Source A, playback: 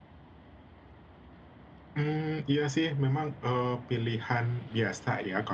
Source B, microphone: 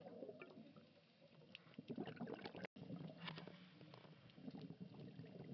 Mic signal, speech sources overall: neither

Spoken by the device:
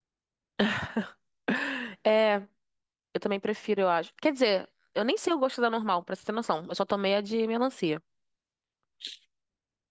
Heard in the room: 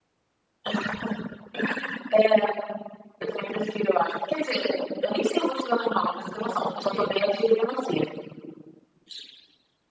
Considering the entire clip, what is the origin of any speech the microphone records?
both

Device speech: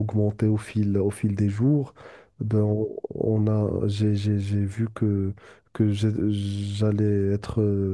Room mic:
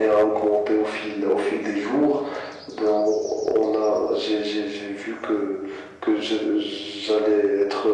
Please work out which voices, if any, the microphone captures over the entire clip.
echo only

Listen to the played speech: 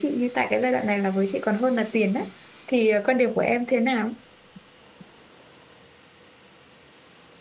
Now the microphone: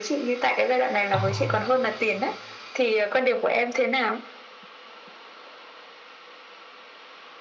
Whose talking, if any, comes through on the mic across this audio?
both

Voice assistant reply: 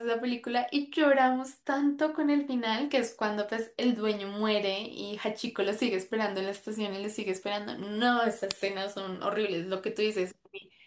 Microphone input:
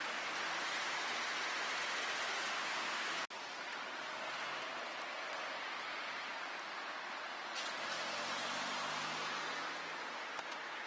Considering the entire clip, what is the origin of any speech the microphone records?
neither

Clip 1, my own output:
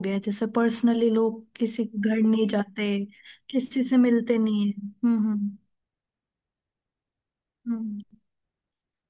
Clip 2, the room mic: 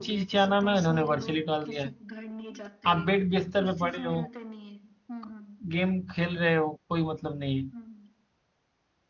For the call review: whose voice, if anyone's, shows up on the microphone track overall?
both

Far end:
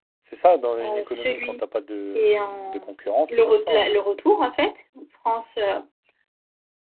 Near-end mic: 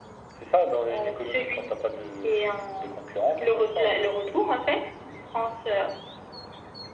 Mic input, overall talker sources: echo only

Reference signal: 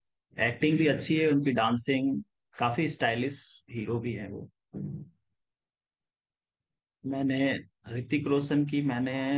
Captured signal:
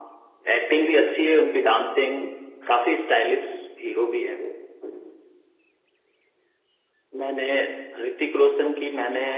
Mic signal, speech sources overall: echo only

